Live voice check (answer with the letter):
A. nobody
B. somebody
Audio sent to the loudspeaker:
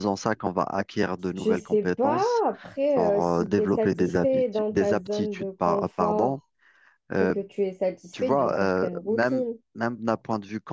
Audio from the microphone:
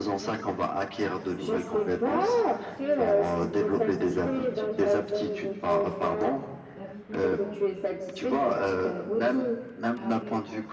B